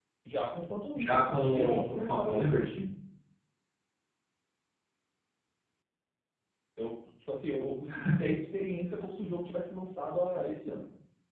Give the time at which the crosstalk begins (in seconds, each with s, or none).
0.9 s